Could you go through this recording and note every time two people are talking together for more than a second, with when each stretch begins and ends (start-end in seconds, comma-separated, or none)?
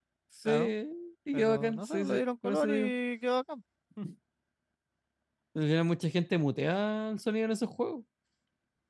1.3-2.9